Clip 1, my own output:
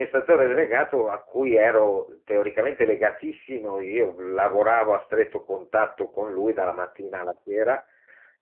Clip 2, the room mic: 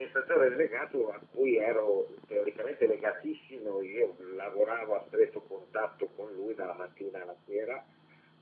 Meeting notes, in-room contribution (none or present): none